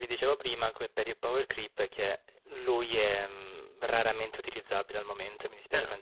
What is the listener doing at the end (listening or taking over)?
taking over